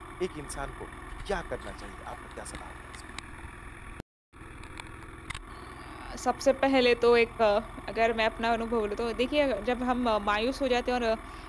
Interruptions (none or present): none